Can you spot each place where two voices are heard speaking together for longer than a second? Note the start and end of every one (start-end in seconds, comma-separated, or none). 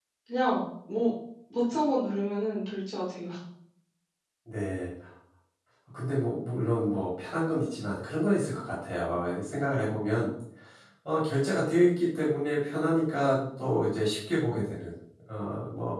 none